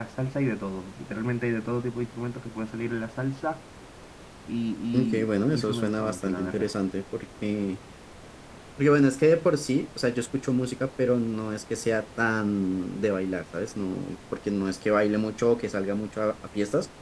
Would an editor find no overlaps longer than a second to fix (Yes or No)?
No